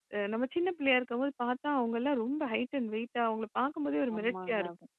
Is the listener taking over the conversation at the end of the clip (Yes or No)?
Yes